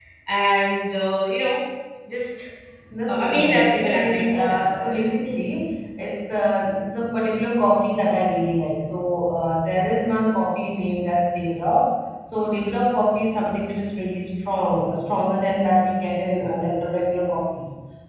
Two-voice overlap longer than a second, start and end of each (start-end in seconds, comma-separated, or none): 3.1-4.9